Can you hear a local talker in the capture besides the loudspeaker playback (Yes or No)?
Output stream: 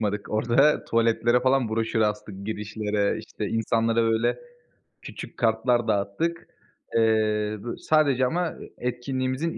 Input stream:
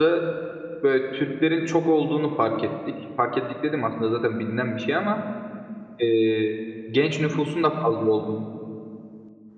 Yes